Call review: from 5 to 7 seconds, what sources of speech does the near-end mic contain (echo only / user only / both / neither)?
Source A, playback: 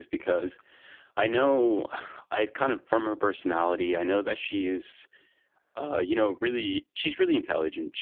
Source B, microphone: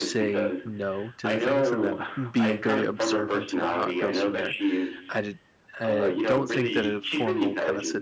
both